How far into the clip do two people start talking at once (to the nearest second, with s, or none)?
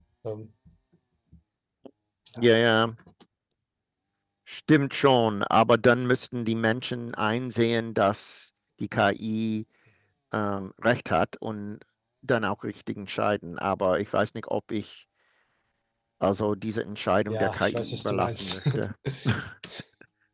17 s